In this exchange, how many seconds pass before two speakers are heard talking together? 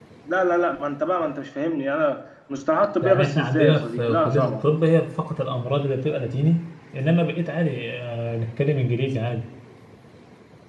3.0 s

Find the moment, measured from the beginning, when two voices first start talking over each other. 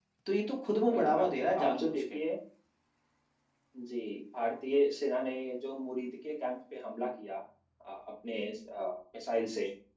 0.9 s

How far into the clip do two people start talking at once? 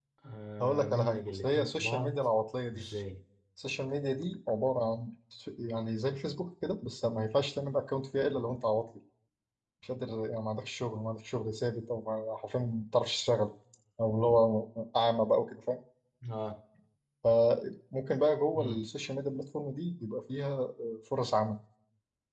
0.6 s

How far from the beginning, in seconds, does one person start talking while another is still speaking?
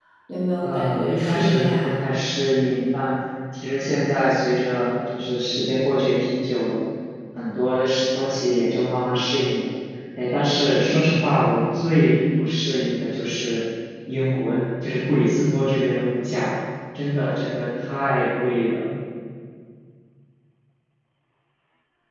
0.6 s

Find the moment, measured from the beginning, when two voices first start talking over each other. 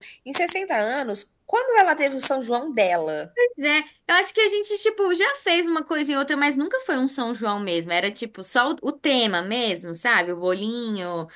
none

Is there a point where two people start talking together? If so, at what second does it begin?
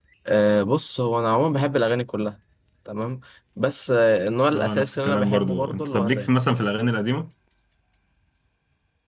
4.5 s

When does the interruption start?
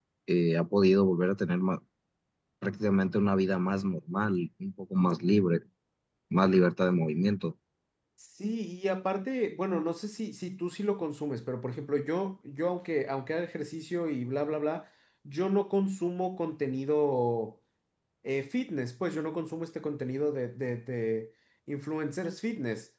none

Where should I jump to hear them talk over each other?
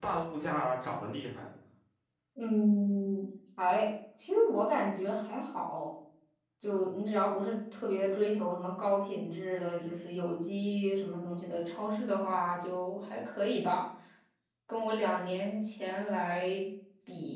none

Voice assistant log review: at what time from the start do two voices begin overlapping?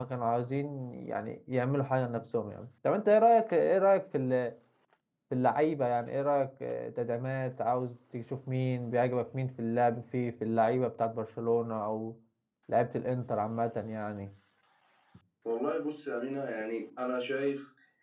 none

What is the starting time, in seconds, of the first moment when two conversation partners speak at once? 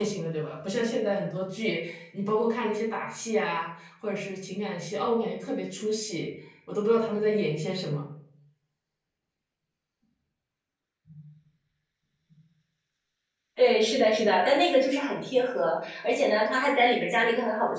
none

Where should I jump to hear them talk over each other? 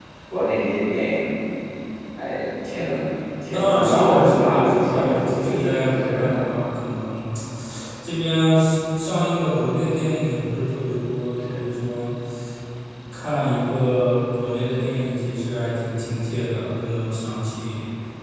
3.5 s

